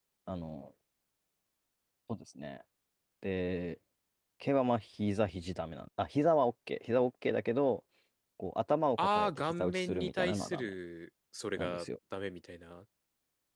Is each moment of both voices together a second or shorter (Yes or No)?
No